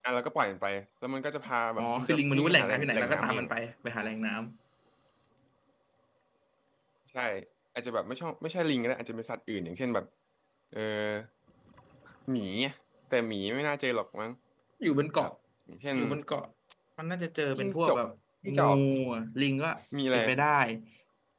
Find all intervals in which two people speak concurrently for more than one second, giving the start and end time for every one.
1.8-3.5

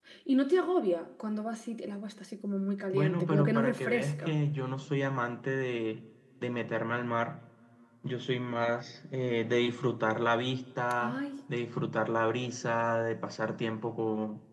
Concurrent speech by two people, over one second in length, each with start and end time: 2.9-4.4

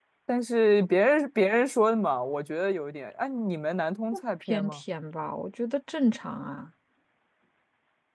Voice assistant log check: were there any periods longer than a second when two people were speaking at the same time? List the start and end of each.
none

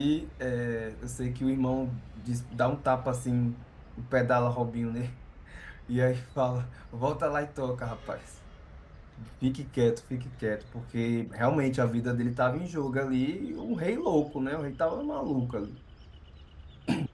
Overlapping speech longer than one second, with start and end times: none

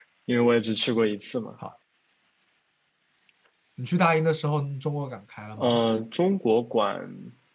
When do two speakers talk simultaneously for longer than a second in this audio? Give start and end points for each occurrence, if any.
none

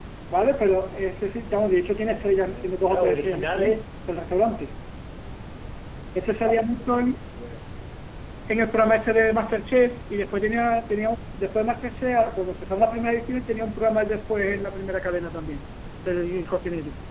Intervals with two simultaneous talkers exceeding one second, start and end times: 2.0-3.8

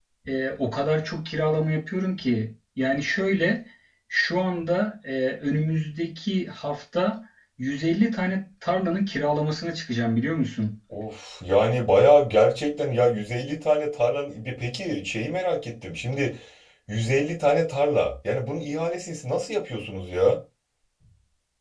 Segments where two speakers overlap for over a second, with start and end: none

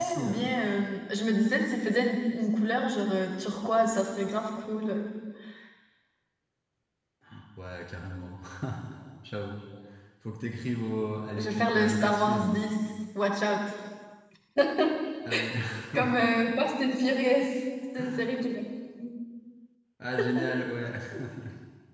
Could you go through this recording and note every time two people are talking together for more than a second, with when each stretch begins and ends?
11.4-12.6

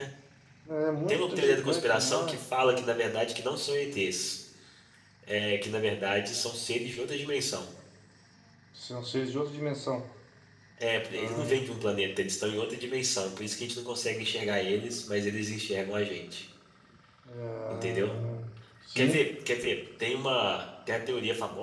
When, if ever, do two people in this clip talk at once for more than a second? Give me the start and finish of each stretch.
1.1-2.4

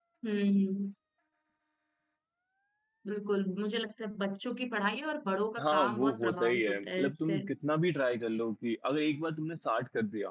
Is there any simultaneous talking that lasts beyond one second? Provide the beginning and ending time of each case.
5.6-7.4

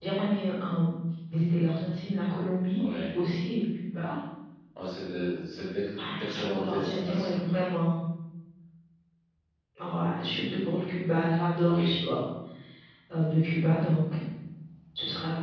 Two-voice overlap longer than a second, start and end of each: 6.0-7.4

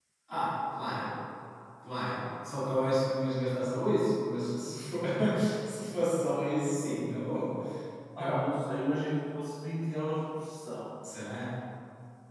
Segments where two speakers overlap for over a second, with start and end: none

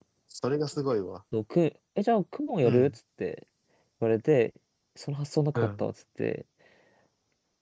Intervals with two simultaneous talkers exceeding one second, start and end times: none

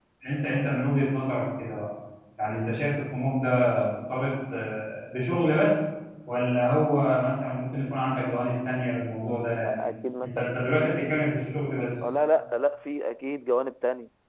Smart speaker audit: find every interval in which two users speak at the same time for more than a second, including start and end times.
none

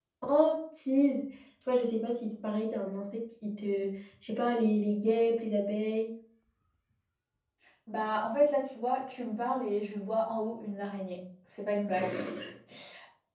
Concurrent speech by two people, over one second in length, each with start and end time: none

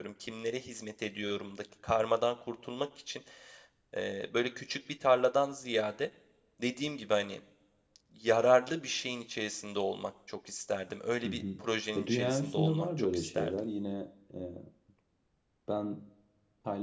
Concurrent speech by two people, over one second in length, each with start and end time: 12.0-13.6

